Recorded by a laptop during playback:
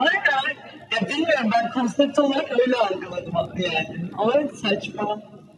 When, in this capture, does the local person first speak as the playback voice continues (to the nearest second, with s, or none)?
none